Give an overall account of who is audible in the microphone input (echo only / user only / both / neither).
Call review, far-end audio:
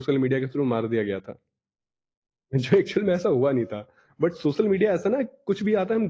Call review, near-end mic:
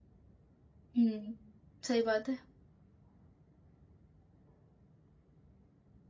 user only